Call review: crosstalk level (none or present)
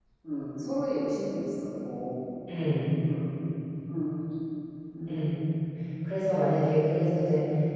none